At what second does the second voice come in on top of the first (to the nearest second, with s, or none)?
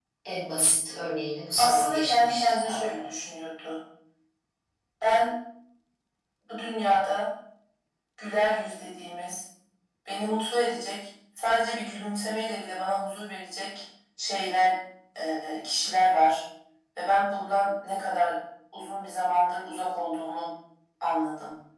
2 s